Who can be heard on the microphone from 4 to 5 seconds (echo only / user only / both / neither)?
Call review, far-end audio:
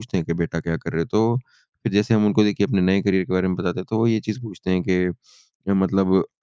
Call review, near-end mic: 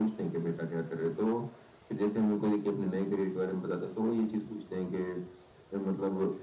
echo only